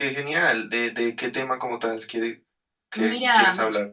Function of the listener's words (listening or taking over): taking over